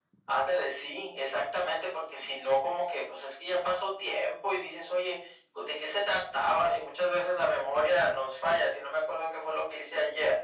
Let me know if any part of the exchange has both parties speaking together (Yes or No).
No